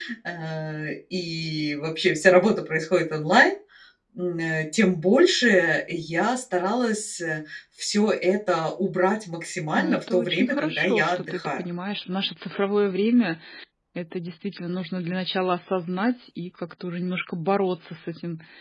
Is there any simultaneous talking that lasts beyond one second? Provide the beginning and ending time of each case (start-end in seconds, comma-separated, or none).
9.8-11.6